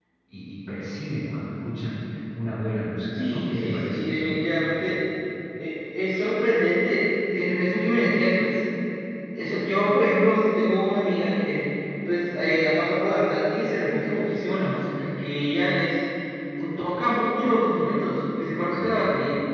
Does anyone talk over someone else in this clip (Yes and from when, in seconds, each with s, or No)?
Yes, from 3.1 s